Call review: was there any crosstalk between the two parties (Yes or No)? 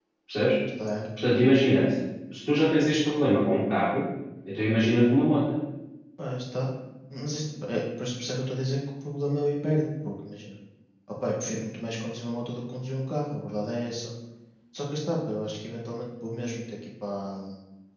No